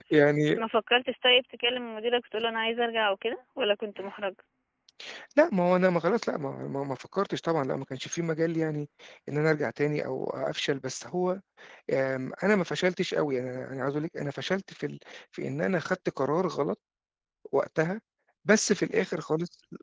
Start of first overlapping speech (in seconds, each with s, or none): none